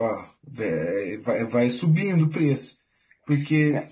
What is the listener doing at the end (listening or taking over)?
listening